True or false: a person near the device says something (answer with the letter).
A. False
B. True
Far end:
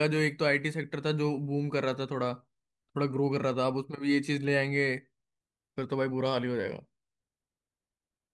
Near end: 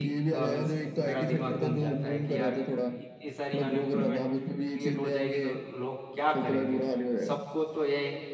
B